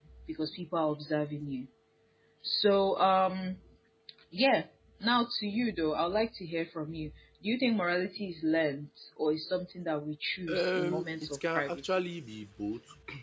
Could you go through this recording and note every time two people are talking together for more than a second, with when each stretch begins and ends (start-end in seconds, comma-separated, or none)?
10.5-12.0